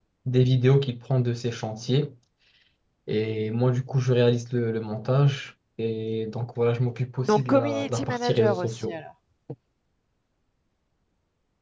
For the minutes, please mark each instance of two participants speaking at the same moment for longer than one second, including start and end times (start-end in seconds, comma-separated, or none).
7.2-9.0